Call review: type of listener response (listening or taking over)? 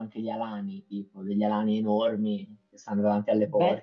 taking over